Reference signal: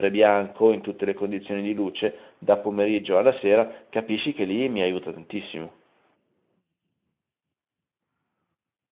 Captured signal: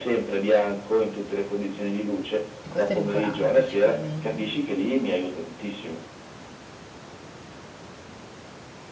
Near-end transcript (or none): E questo è rincuorante sicuramente.